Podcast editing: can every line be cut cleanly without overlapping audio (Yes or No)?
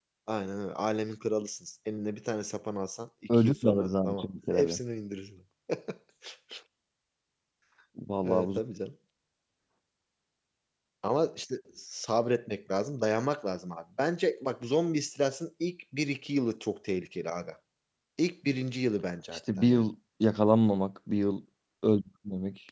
No